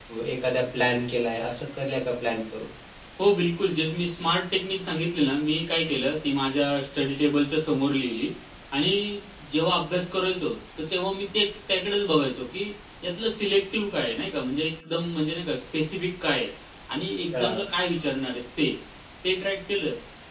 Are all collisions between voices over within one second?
Yes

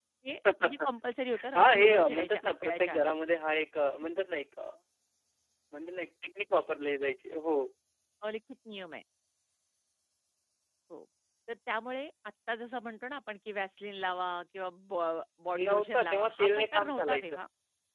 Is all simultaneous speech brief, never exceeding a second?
No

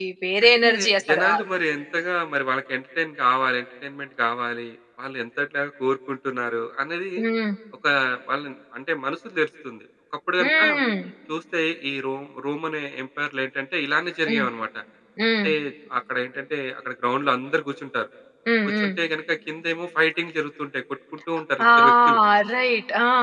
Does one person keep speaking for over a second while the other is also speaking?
No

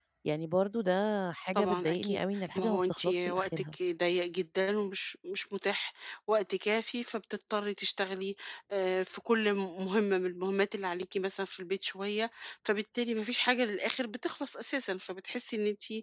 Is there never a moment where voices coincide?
No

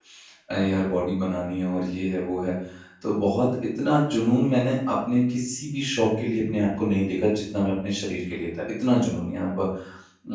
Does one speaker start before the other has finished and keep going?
No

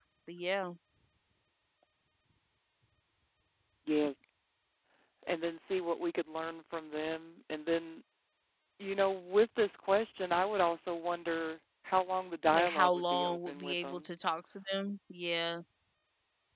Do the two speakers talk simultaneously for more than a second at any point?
Yes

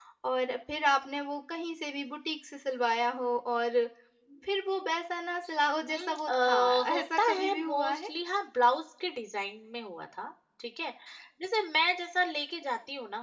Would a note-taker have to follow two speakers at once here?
Yes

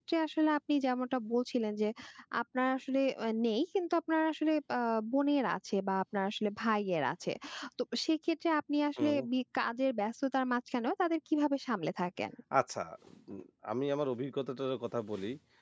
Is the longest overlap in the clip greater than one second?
No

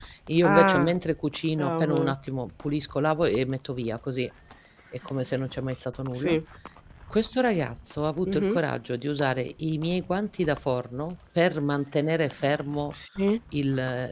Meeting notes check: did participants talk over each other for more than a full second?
No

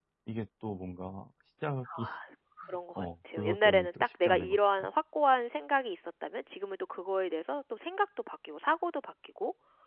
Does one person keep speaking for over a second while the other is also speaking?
Yes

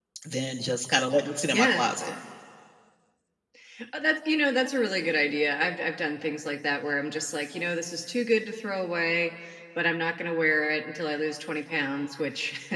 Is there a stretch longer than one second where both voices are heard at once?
No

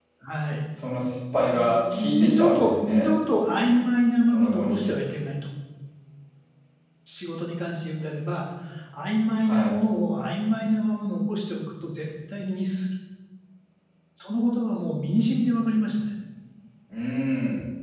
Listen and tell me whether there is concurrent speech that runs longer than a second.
Yes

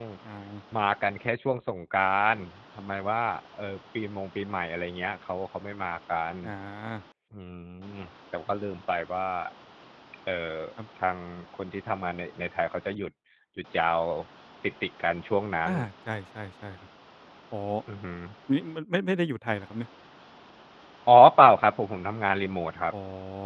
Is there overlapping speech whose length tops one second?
No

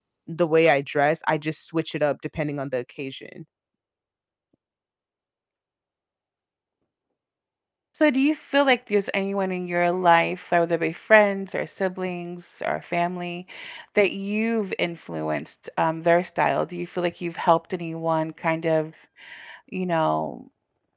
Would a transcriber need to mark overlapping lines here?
No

